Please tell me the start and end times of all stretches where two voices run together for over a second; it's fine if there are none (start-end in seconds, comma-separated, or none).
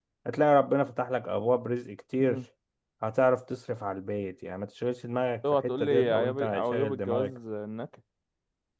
5.6-7.3